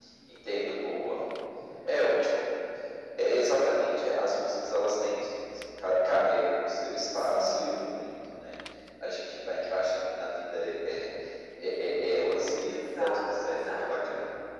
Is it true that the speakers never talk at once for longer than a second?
No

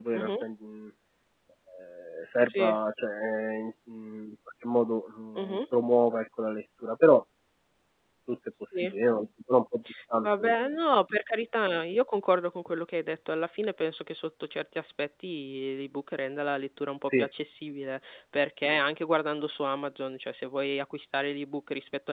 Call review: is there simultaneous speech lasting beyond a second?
No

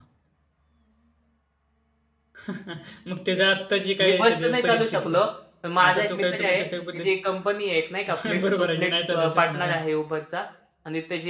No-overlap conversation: No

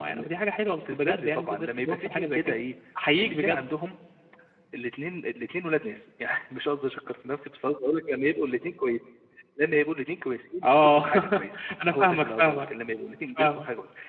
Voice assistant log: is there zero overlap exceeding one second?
No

